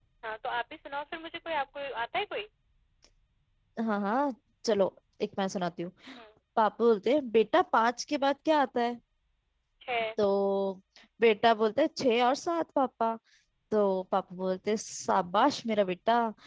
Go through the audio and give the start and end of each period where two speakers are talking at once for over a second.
none

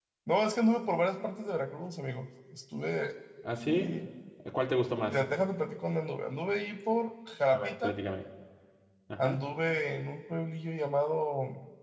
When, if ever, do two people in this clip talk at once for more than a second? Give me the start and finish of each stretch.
none

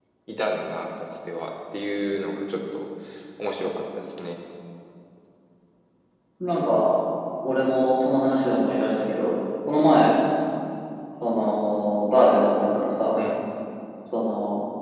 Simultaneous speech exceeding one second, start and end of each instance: none

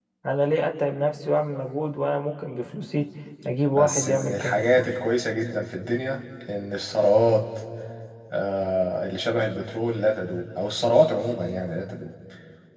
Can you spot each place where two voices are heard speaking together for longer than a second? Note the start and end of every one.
3.7-5.0

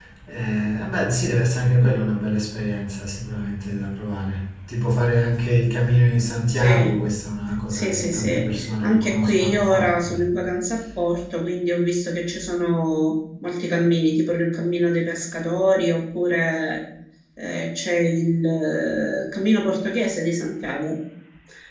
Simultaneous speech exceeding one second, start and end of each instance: 7.7-10.1

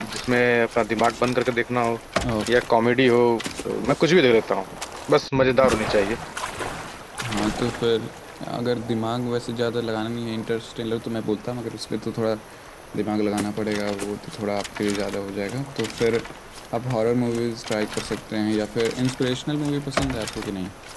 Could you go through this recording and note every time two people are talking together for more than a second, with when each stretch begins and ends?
none

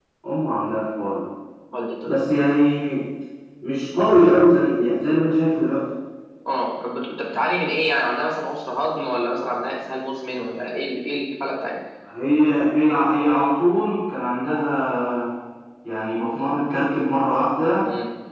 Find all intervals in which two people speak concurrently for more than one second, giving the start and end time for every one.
none

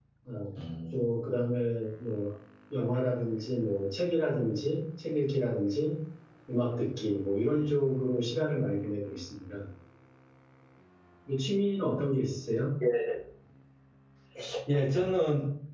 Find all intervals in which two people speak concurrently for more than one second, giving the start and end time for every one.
none

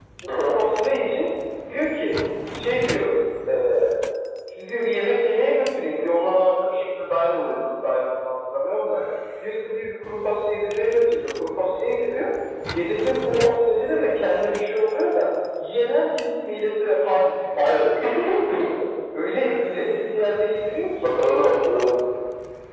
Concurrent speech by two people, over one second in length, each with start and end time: none

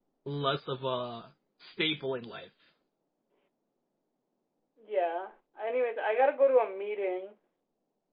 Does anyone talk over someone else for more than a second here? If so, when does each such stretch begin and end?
none

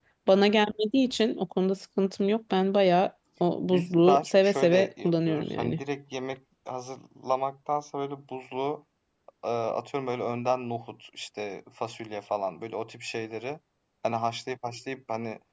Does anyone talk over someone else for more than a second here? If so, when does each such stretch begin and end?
3.7-5.8

